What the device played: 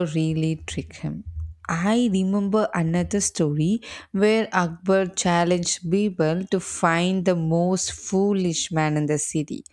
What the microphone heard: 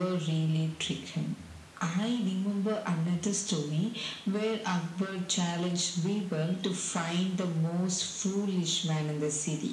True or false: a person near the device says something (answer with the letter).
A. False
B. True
A